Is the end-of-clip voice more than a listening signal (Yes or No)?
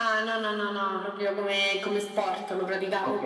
Yes